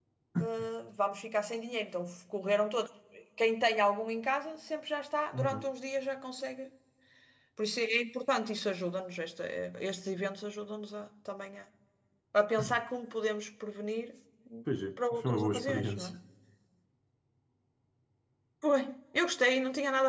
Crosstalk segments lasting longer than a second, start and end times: 15.0-16.2

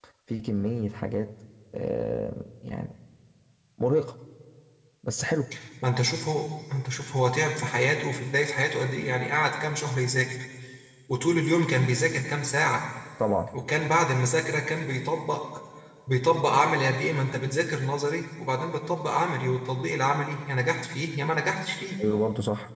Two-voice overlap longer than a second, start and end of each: none

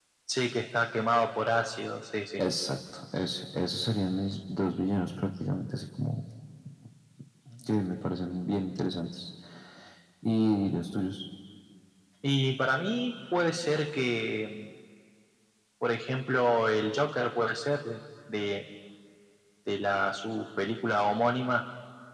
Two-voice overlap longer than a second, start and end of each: none

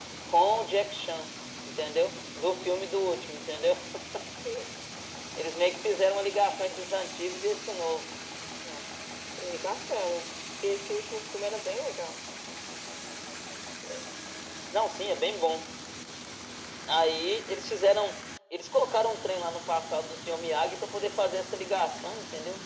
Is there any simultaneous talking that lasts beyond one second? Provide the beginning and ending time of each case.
none

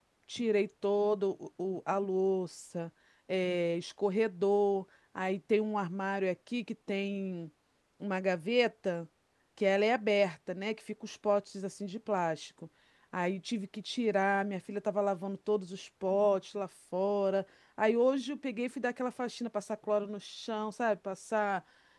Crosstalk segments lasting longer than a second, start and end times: none

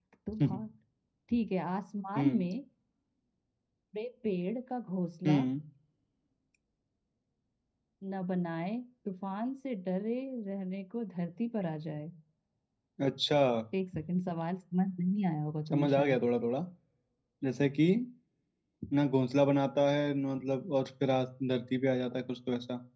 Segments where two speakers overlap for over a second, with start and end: none

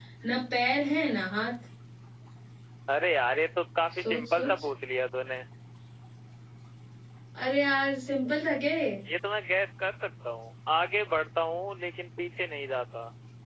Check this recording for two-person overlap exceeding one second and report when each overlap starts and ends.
none

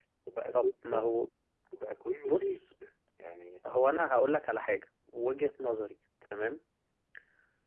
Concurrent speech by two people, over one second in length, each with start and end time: none

